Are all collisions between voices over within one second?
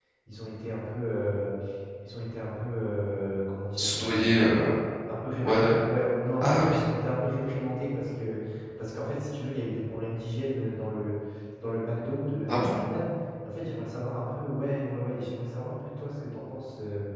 Yes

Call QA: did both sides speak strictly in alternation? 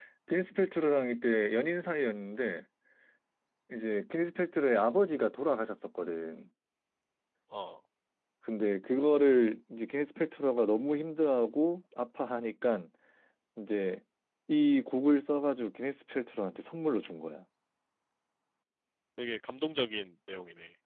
Yes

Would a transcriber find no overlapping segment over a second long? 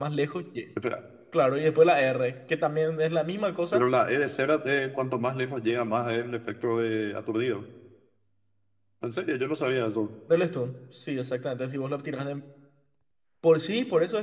Yes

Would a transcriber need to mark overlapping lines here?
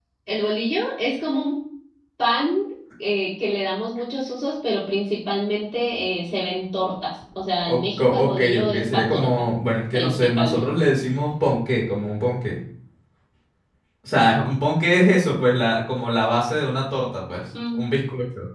Yes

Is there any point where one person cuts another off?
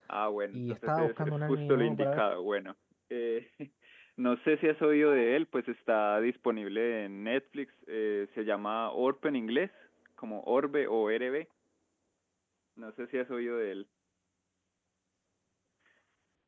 Yes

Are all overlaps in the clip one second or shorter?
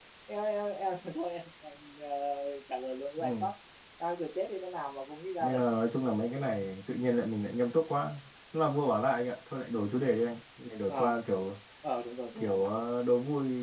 Yes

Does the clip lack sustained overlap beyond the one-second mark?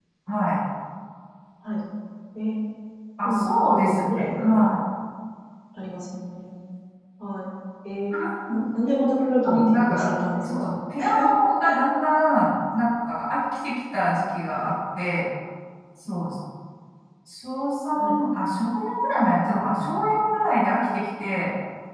No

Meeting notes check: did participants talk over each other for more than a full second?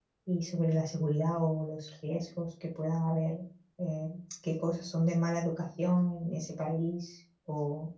No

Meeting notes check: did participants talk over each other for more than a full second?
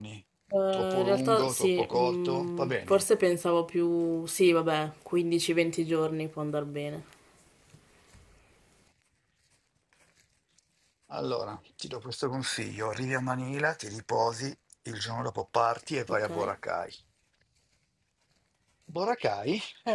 Yes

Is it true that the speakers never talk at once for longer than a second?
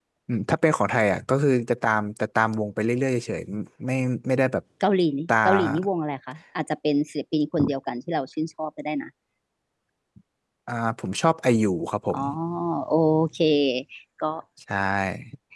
Yes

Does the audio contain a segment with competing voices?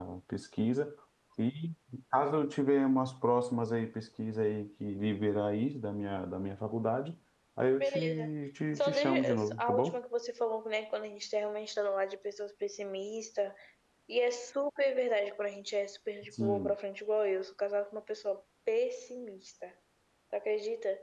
Yes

